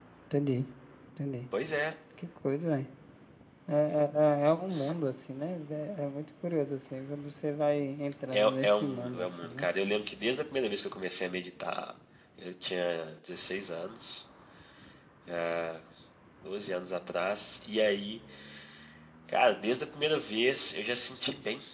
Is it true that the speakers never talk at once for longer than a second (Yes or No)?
No